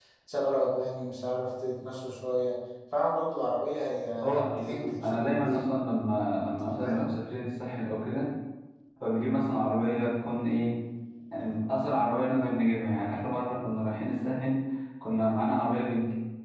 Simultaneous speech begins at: 4.5 s

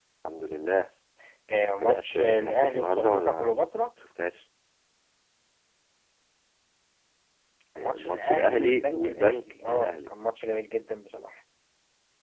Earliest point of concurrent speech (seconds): 1.8 s

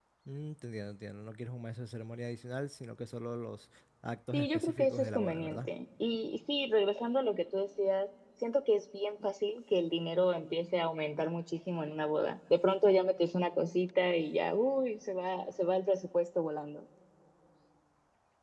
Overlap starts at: 4.3 s

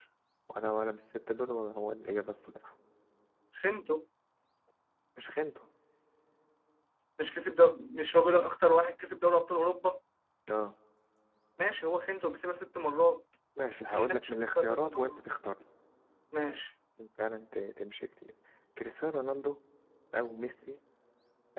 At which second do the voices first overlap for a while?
13.8 s

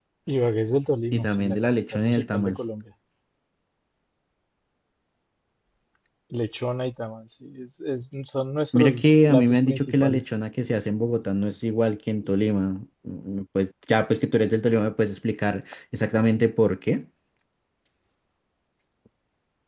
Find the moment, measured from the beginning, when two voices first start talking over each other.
1.1 s

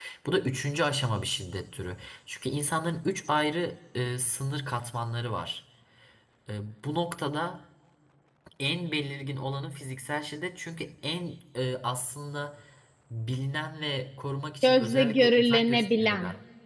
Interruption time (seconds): 14.6 s

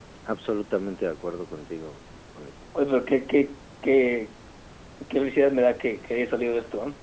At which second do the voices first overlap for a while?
none

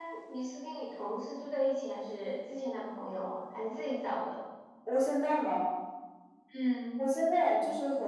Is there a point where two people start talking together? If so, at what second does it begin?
none

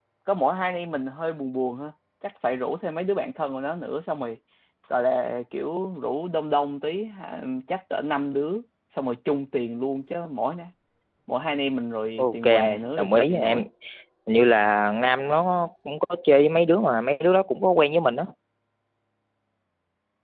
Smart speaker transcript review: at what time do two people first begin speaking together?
12.2 s

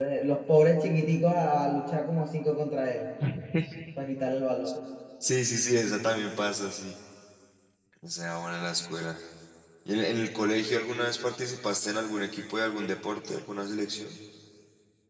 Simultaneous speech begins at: none

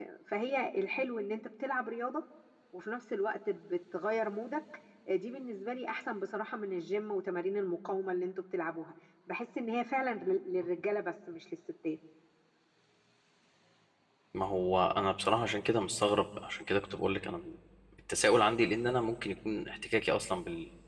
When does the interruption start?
none

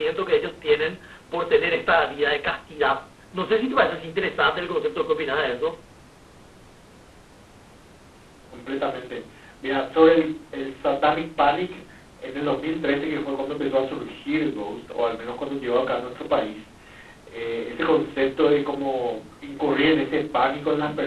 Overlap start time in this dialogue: none

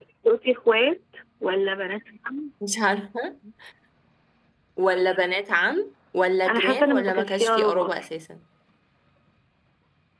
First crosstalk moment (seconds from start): 6.5 s

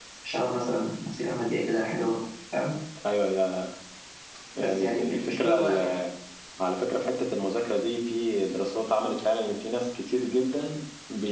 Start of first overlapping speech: 4.6 s

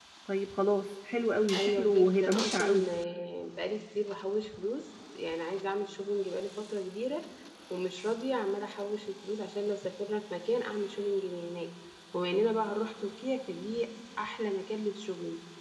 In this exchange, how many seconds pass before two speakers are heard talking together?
1.5 s

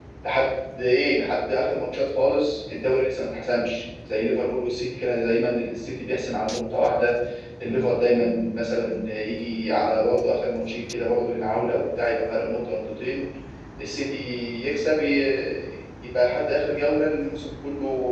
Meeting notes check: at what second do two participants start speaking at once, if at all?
none

